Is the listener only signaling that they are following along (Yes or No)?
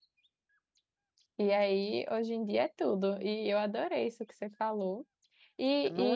Yes